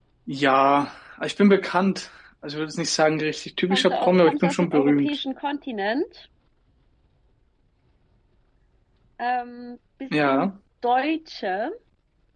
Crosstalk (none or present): present